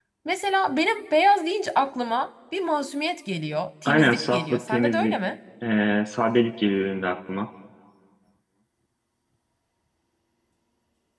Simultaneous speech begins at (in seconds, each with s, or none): 3.9 s